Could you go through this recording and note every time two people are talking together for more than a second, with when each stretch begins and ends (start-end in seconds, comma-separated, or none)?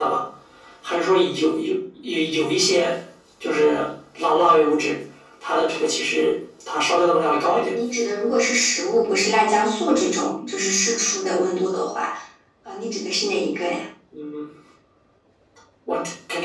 none